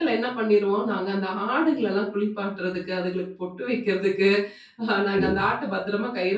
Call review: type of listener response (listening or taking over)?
listening